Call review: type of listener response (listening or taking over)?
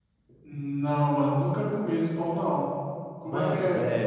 taking over